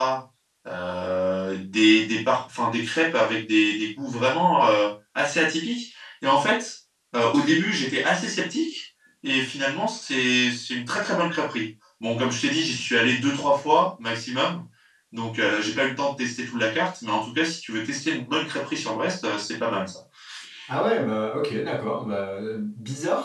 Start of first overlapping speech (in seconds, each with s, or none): none